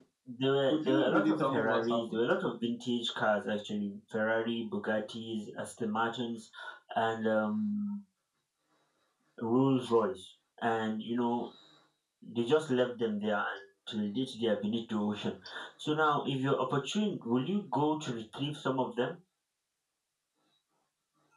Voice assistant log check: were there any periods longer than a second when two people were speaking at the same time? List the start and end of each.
0.7-2.2

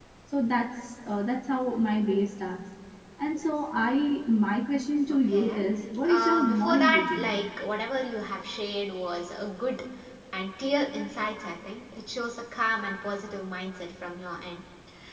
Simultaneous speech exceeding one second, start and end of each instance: 6.0-7.4

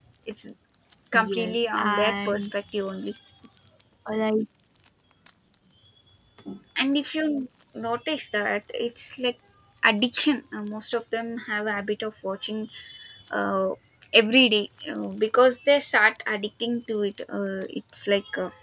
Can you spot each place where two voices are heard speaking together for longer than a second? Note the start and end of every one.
1.1-2.5

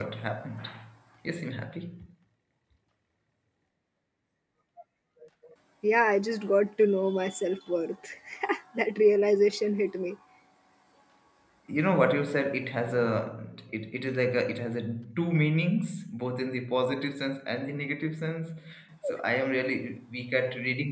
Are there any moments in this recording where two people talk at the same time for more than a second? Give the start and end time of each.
none

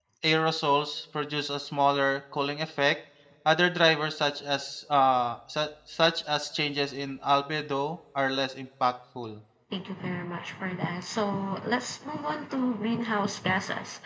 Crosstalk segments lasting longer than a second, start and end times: none

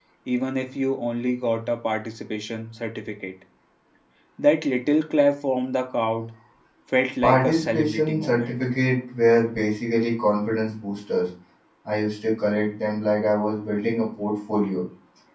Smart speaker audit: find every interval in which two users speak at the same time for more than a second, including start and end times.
7.2-8.5

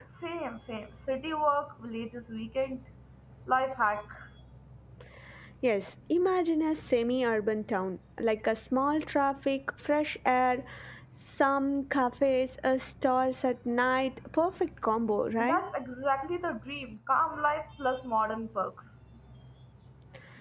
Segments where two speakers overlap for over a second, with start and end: none

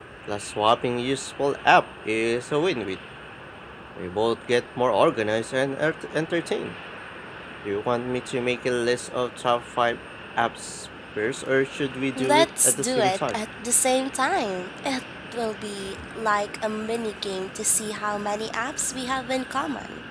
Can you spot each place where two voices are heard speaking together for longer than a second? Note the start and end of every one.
12.2-13.4

